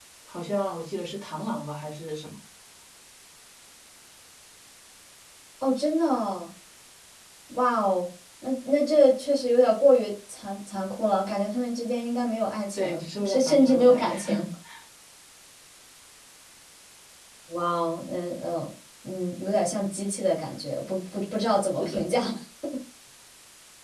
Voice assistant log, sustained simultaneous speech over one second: present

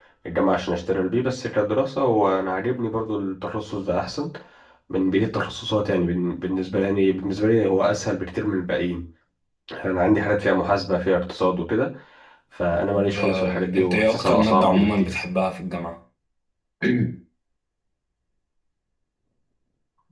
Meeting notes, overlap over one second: present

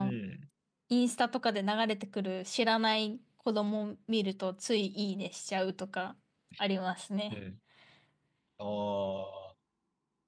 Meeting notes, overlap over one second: none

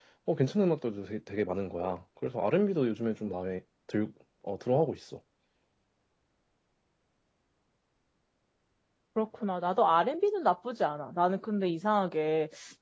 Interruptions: none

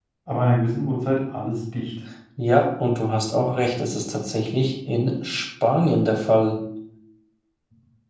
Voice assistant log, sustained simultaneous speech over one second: none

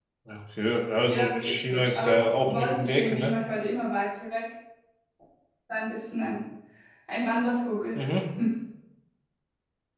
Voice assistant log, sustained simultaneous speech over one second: present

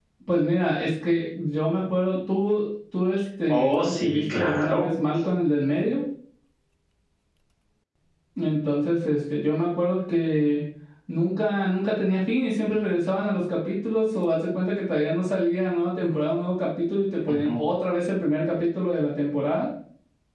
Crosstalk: present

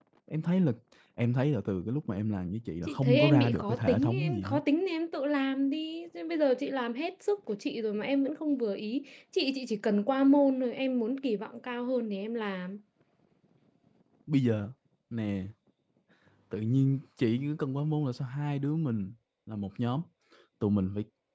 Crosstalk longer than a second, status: present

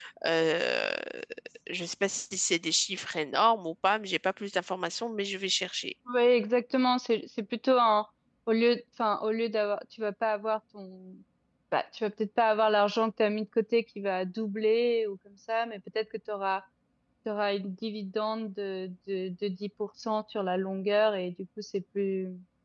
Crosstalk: none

